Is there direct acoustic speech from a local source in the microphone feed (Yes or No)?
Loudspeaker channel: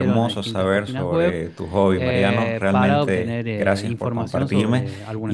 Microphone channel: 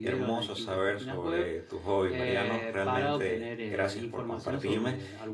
No